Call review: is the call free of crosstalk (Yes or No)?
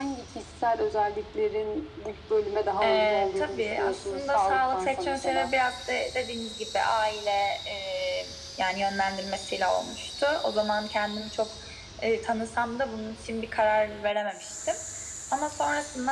No